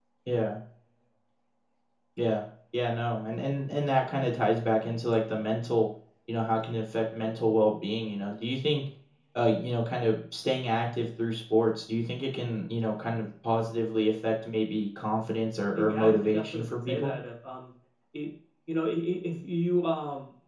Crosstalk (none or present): present